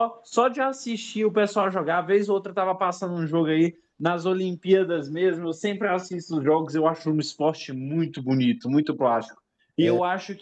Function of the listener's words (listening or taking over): listening